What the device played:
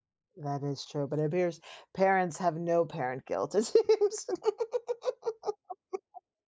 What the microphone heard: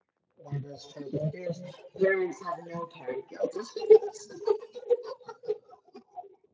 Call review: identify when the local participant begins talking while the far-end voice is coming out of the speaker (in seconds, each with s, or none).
none